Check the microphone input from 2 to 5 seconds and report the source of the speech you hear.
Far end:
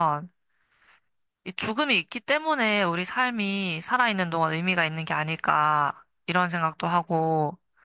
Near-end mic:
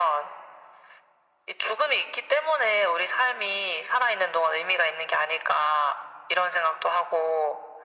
echo only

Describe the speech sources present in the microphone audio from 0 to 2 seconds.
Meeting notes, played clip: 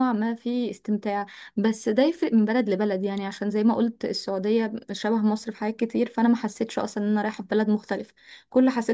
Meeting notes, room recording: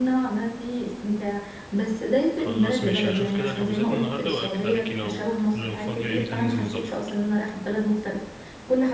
echo only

